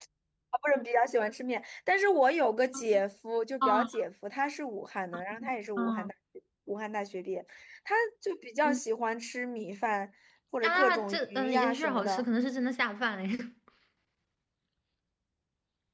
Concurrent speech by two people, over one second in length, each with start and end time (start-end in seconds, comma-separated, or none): 10.6-12.2